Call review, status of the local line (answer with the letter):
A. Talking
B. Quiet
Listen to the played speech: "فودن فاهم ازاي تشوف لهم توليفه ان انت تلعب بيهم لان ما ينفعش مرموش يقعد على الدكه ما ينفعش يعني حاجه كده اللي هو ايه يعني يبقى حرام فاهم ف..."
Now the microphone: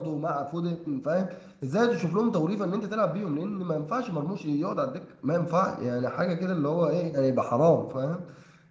B